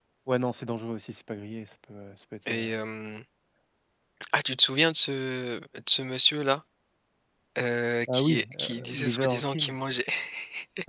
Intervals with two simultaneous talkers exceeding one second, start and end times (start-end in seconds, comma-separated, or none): 8.1-9.7